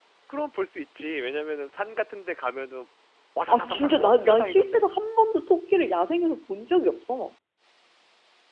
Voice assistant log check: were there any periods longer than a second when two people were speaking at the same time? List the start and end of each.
3.5-4.8

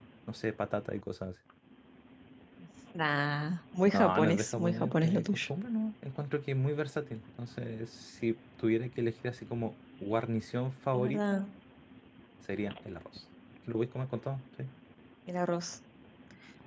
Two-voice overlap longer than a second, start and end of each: 3.9-5.4

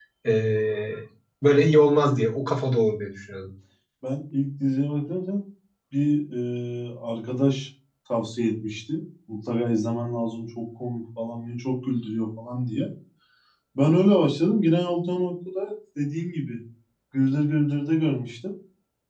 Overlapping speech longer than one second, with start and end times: none

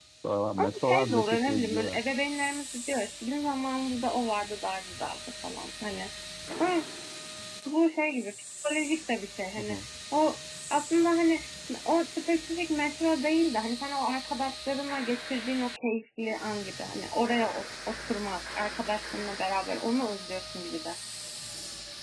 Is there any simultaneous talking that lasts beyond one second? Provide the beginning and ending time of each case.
0.6-2.0

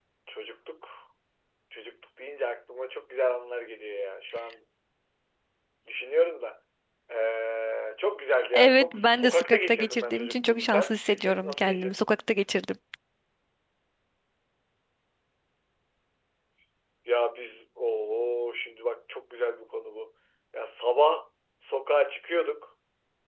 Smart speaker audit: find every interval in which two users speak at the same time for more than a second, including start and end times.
8.5-12.2

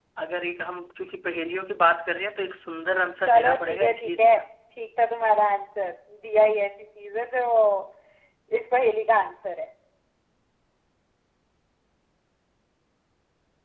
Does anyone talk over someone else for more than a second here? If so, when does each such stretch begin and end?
3.2-4.4

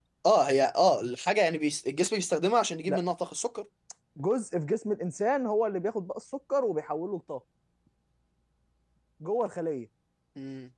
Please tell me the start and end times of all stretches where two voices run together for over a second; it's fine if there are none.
none

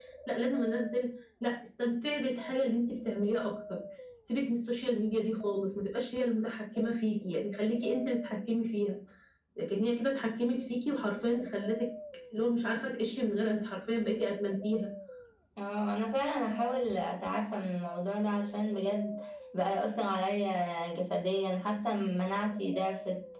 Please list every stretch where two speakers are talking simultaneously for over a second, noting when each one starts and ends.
none

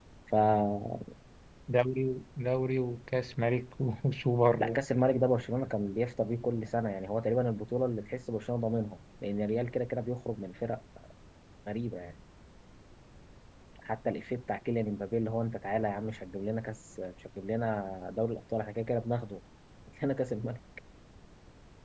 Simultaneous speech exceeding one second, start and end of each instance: none

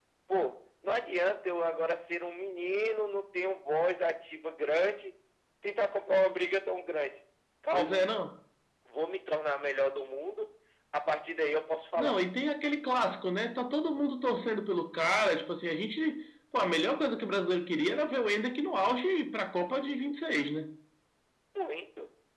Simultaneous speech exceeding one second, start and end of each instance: none

